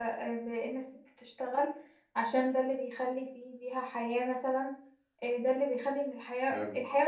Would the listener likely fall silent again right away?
Yes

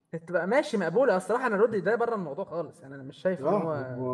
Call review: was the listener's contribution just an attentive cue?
No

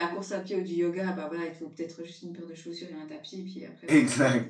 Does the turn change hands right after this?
Yes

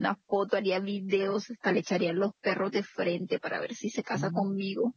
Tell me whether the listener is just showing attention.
No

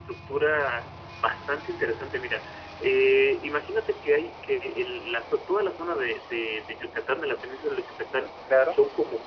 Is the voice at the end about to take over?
No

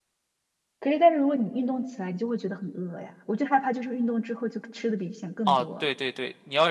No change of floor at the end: No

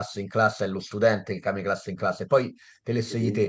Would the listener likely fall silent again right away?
Yes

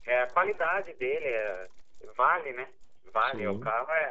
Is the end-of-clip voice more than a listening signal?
No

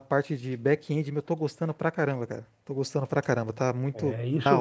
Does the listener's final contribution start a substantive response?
Yes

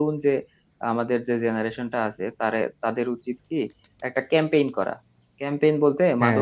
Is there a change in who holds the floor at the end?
No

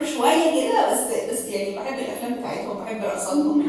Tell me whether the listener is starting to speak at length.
Yes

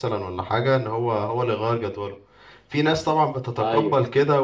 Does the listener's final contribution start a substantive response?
No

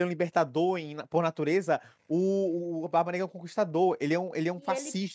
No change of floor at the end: No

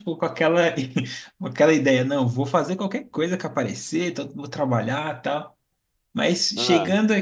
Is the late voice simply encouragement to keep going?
Yes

